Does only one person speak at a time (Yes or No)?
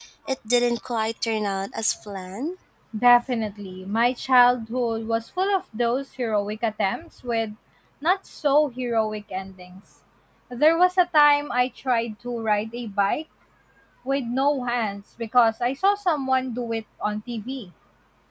Yes